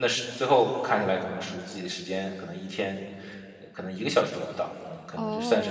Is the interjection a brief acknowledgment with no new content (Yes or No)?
No